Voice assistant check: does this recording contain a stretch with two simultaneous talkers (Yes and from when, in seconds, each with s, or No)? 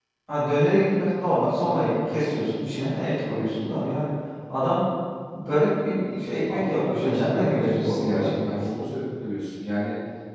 Yes, from 6.5 s